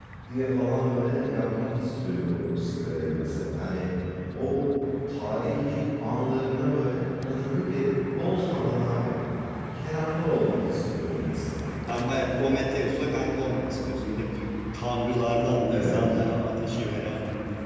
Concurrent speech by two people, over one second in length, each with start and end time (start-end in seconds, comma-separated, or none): none